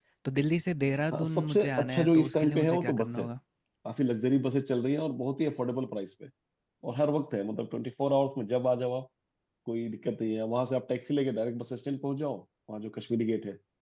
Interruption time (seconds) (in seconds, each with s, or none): 1.1 s